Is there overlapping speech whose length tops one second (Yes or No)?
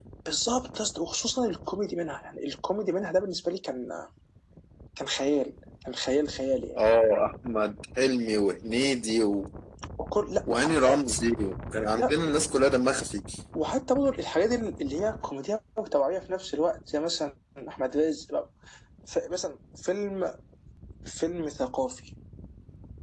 No